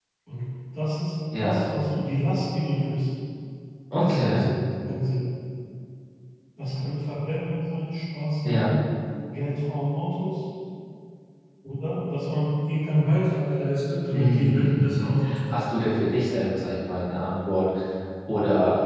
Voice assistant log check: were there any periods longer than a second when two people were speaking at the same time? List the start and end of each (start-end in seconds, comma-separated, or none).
14.1-15.6